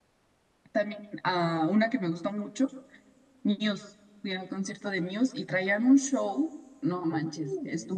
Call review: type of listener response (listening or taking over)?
listening